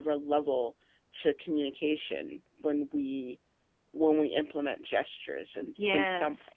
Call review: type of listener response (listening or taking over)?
taking over